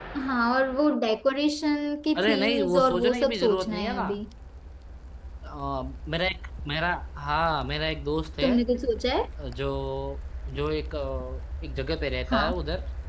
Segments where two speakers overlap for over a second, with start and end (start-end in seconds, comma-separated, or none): 2.2-4.1